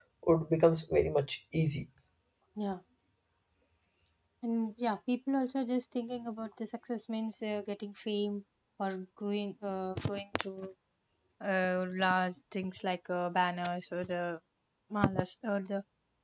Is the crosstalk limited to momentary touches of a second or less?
Yes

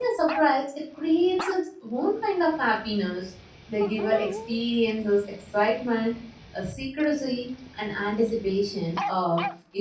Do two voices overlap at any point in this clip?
No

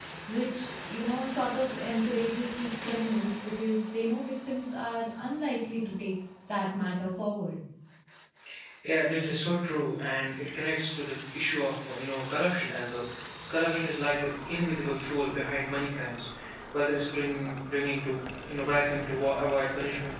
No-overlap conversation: Yes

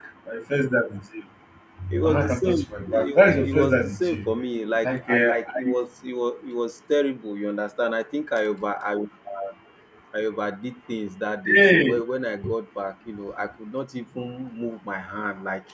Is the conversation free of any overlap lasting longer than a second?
No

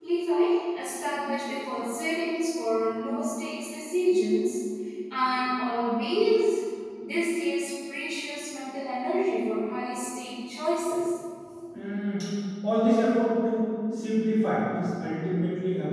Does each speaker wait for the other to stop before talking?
Yes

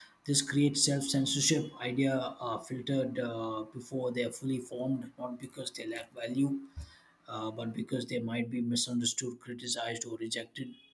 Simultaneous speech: No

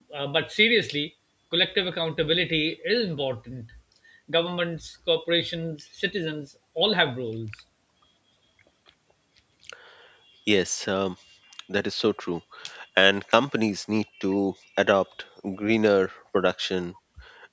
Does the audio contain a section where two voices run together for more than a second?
No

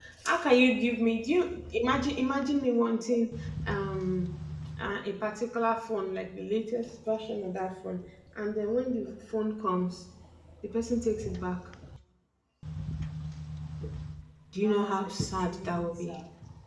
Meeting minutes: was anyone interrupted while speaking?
Yes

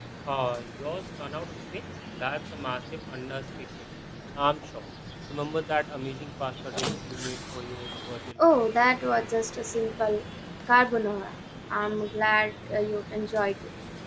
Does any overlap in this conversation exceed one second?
No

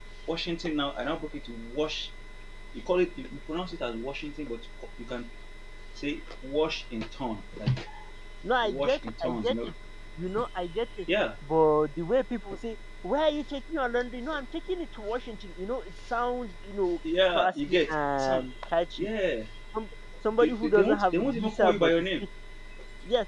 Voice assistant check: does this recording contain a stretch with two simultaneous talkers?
Yes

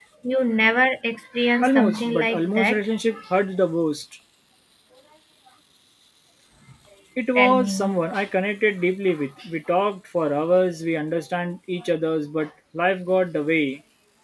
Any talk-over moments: Yes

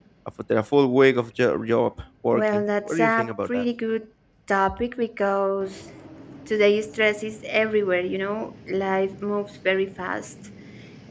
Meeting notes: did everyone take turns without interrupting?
No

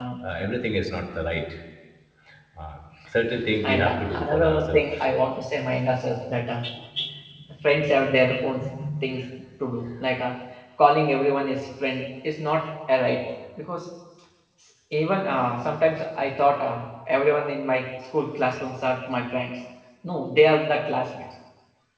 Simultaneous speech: Yes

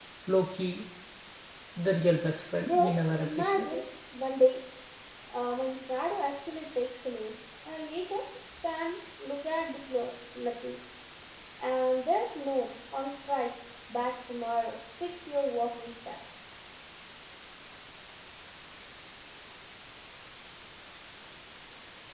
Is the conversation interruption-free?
No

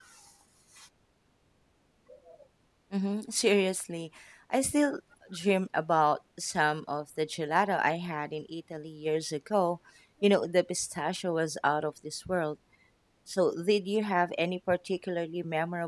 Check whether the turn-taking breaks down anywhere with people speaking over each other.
No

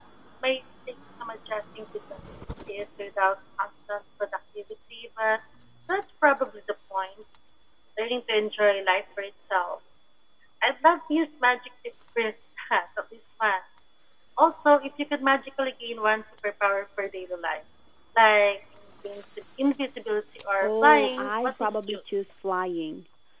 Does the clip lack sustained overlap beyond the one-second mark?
No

